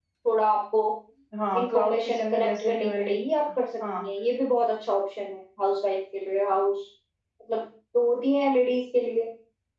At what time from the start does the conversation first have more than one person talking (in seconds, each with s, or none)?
1.6 s